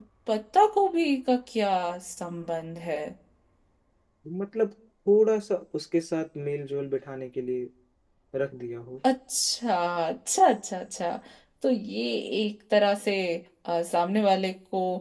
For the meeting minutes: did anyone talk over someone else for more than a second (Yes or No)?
No